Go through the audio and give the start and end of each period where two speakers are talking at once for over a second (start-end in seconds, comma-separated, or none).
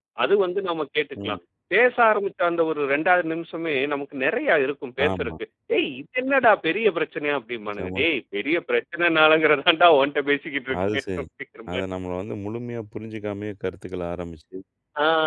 none